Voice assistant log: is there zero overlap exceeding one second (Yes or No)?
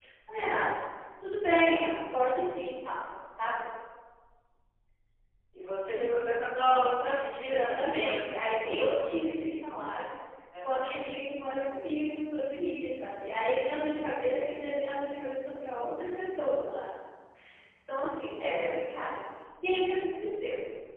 No